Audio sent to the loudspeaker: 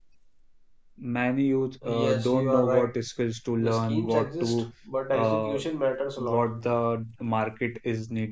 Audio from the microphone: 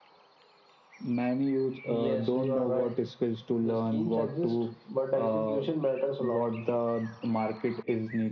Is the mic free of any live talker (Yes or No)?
Yes